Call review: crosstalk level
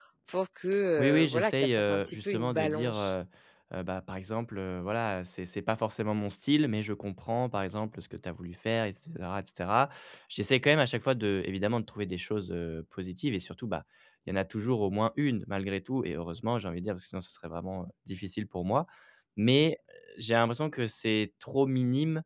present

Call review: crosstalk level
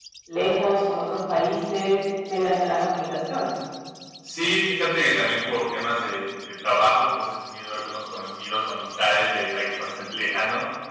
none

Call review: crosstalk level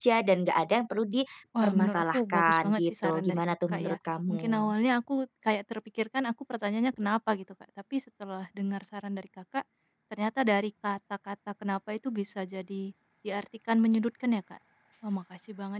present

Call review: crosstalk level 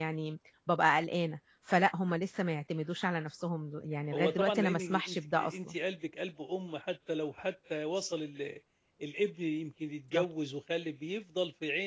present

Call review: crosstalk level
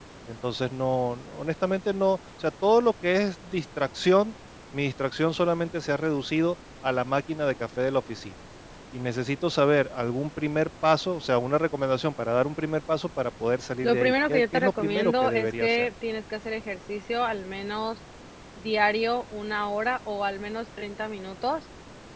present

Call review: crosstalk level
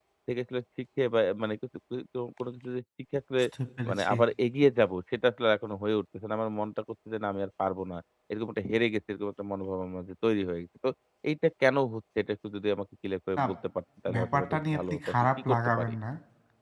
present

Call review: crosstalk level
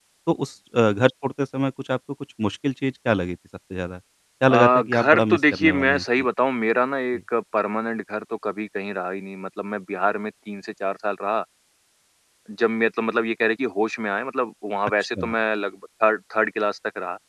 present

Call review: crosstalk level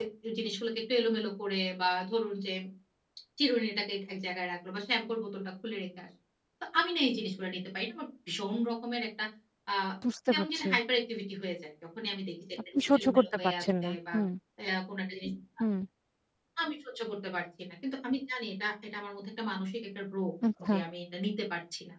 present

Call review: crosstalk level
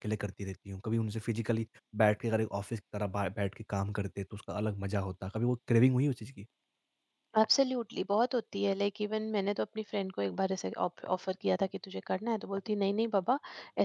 none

